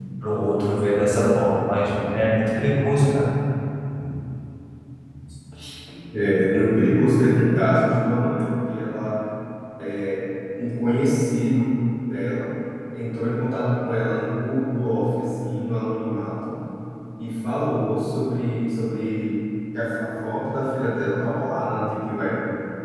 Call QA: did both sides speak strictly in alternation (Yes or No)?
Yes